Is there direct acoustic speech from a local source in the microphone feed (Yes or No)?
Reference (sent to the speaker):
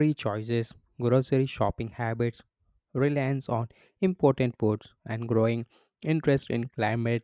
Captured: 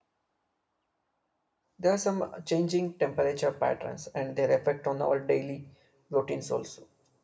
Yes